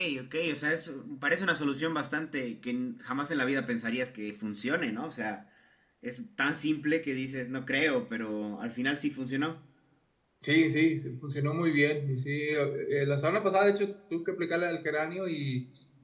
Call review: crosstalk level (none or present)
none